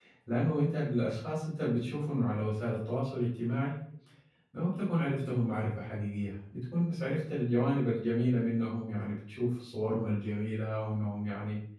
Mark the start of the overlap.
none

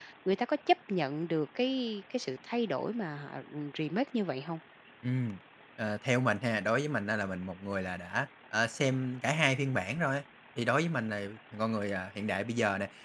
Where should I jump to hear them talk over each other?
none

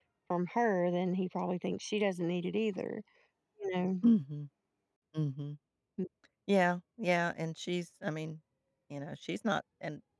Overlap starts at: none

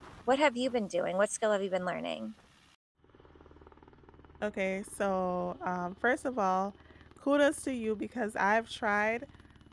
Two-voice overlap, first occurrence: none

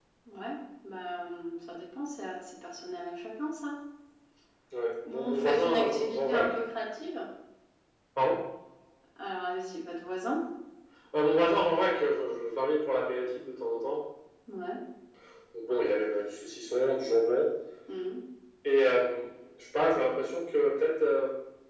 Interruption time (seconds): 5.1 s

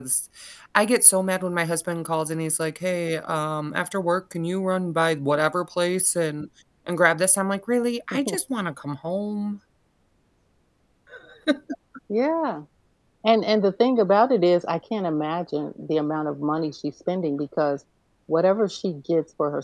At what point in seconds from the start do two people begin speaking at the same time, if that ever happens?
none

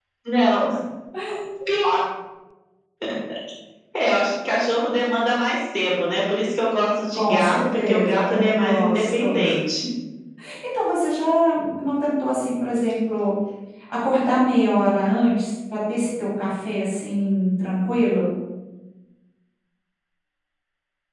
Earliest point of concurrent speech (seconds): 7.1 s

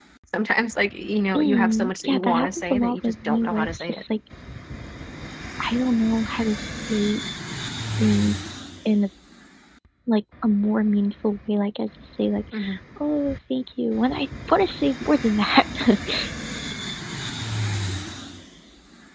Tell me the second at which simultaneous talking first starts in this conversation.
1.3 s

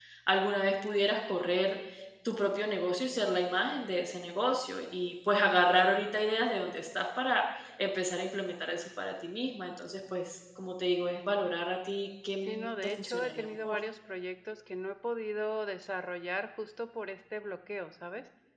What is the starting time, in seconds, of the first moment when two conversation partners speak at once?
12.4 s

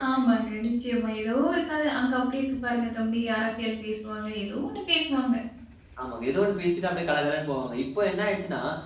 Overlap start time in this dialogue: none

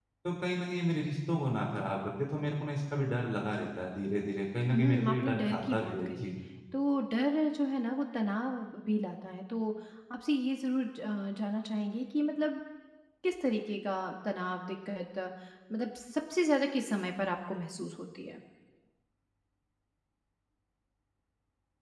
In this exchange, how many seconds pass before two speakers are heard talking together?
4.7 s

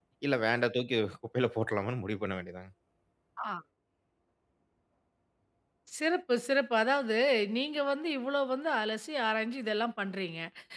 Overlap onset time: none

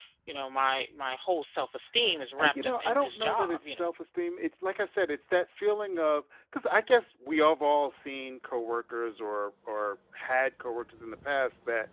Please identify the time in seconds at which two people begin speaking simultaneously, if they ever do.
2.4 s

